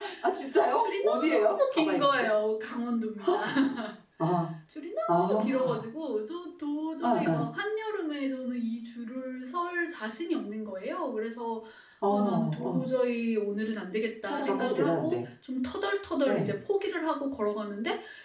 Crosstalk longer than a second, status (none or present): present